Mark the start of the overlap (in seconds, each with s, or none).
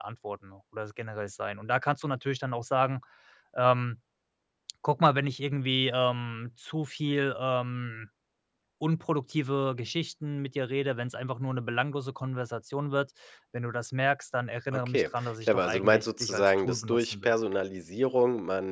14.7 s